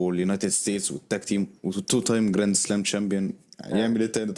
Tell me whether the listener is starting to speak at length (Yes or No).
Yes